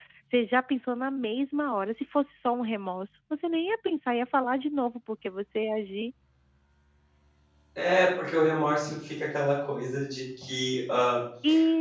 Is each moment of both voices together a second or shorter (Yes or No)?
Yes